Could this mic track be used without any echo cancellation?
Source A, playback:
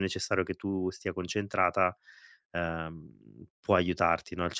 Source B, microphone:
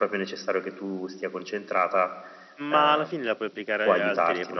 No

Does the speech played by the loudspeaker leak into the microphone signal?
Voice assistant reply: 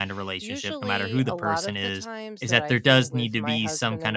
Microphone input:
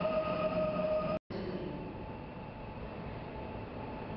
No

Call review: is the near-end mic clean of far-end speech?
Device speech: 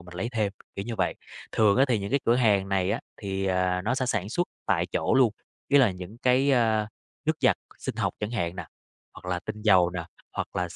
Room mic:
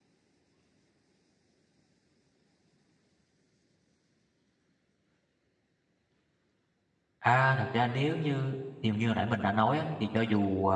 Yes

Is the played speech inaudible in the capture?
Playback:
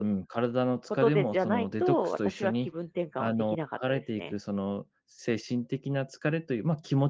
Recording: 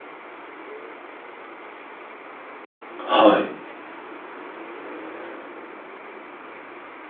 Yes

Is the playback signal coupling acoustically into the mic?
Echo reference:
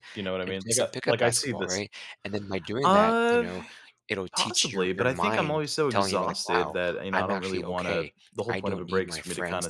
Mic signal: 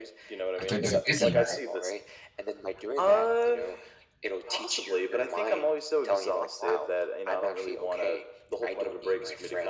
Yes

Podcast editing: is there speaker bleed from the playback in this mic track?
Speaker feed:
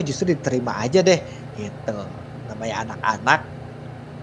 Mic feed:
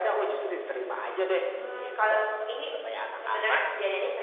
Yes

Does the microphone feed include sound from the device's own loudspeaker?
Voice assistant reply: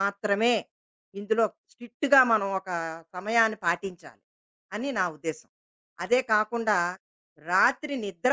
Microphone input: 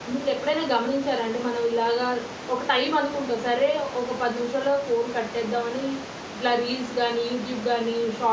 No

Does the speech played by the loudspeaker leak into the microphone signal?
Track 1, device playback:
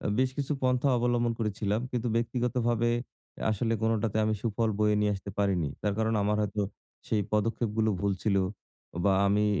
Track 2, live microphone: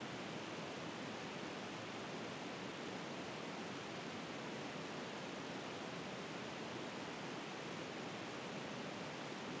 No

